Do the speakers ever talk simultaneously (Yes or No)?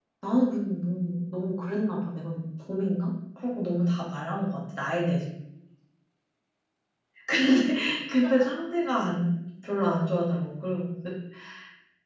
No